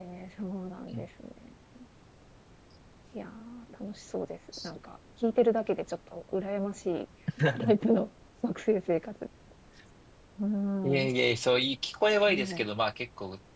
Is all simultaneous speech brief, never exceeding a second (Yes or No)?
Yes